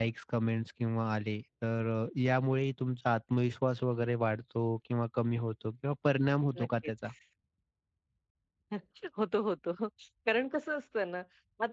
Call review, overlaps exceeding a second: none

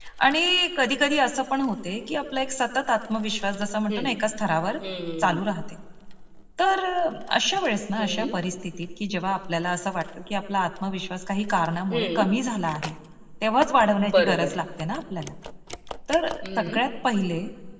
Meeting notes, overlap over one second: none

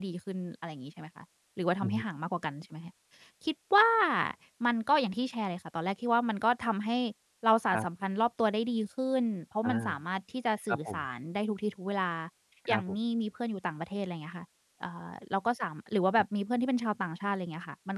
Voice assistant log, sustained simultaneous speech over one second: none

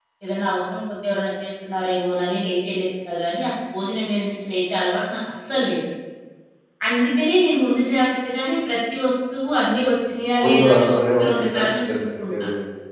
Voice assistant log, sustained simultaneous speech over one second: present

